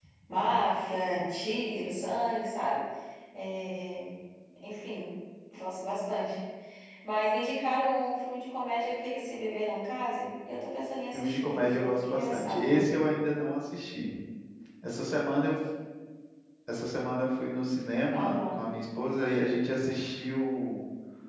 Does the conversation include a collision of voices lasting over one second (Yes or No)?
Yes